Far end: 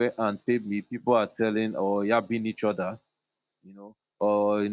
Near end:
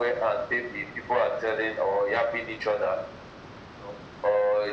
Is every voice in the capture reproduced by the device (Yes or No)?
Yes